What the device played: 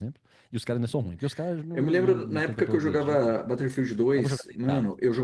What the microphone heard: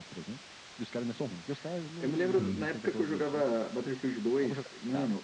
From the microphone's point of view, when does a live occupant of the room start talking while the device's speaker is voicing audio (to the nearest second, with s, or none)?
2 s